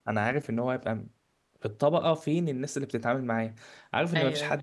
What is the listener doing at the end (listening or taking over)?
listening